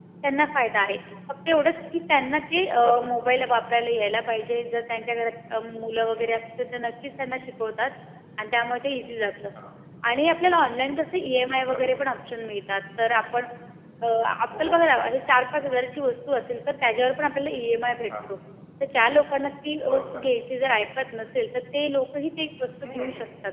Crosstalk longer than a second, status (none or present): none